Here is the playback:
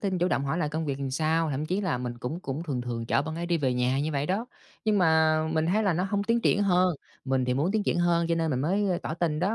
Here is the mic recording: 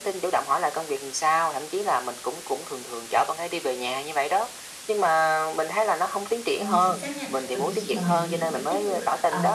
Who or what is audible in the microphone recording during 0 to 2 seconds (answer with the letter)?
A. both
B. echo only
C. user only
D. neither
B